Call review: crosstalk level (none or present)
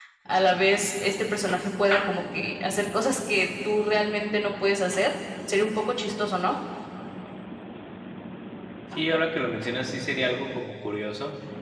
none